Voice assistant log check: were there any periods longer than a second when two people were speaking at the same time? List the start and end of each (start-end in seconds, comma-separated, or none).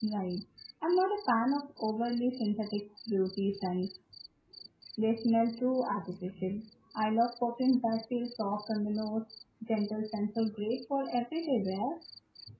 none